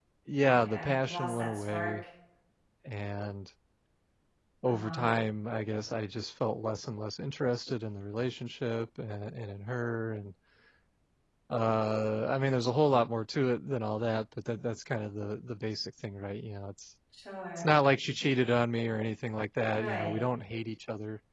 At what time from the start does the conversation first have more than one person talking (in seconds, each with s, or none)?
0.5 s